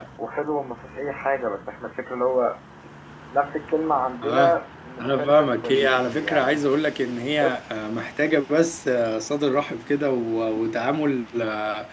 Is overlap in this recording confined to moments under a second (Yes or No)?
No